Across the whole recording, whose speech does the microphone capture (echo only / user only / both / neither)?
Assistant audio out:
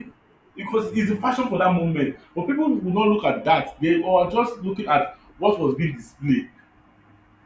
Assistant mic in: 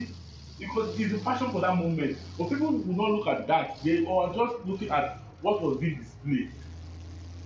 echo only